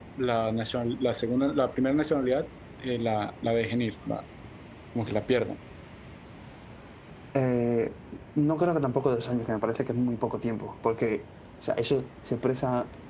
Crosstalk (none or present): none